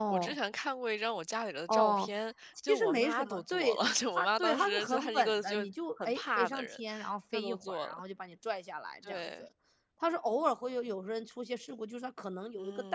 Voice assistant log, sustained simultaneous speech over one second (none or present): present